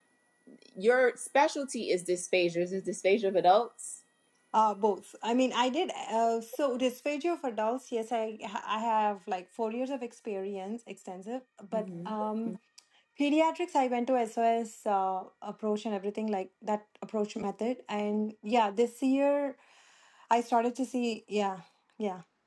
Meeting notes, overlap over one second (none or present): none